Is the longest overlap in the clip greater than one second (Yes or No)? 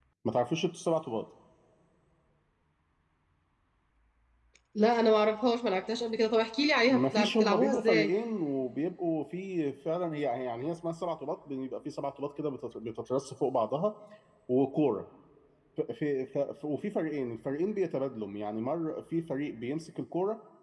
Yes